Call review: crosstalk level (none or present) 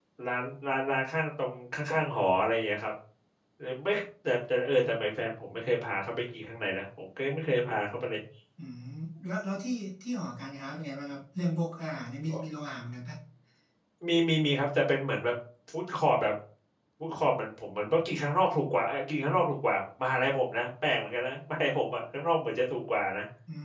none